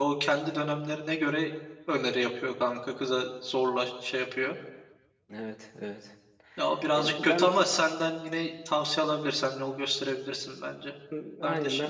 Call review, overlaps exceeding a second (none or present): none